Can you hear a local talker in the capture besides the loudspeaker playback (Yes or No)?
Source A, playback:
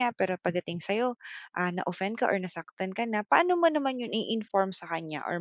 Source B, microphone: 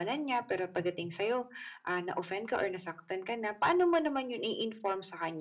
No